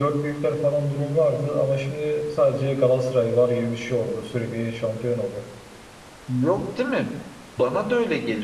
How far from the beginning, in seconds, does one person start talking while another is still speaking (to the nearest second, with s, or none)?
none